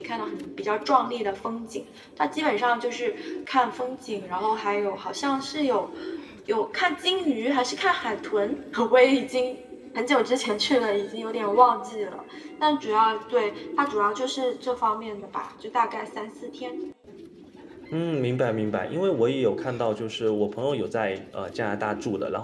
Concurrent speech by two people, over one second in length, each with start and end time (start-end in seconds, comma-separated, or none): none